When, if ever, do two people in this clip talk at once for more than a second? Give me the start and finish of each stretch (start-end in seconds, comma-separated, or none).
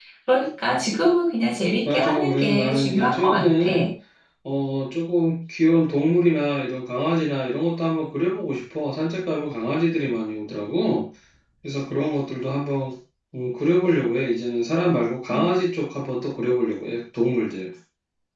1.9-3.7